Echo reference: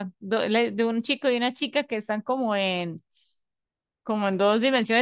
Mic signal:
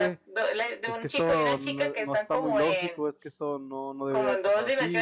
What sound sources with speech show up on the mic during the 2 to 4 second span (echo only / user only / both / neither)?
both